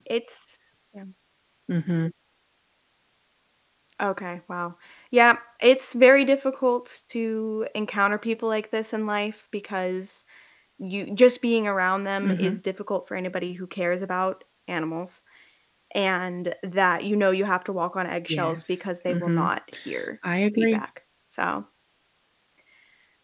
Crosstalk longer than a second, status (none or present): present